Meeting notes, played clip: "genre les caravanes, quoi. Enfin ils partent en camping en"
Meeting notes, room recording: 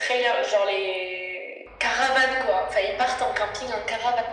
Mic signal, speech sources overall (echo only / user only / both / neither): echo only